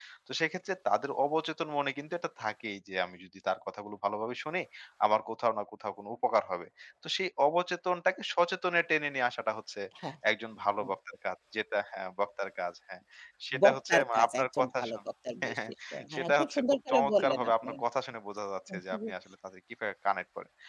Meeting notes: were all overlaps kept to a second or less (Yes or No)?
No